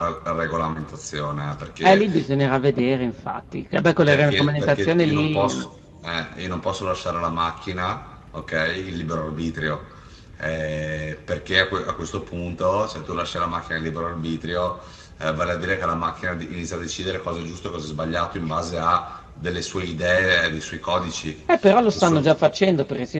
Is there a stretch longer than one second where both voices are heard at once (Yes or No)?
Yes